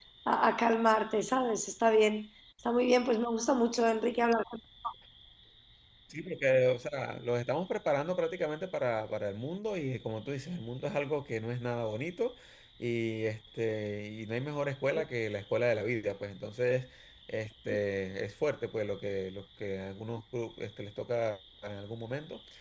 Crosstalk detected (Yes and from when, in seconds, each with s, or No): No